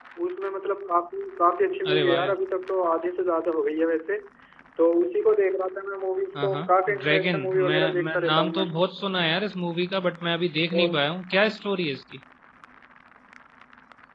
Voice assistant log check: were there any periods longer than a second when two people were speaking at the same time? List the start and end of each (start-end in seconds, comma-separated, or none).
7.0-8.6